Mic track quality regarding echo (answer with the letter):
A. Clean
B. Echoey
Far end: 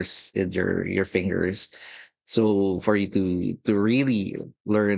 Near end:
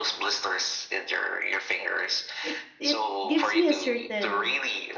B